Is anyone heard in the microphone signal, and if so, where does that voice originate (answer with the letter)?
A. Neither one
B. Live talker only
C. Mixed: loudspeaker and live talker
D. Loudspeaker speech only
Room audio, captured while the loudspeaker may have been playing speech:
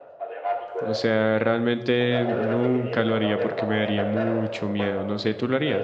C